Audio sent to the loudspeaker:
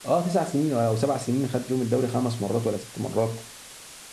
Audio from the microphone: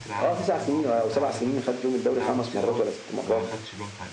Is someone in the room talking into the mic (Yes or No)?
Yes